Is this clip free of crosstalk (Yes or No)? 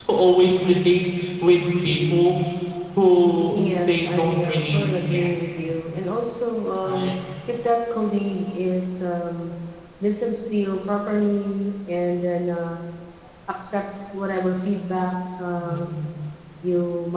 No